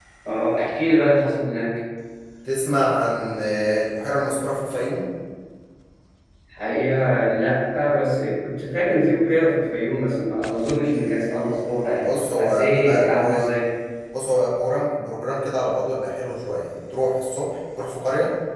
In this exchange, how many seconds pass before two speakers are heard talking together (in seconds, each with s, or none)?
11.9 s